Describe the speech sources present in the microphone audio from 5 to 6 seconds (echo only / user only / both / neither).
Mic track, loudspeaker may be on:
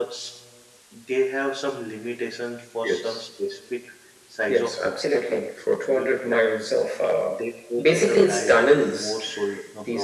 echo only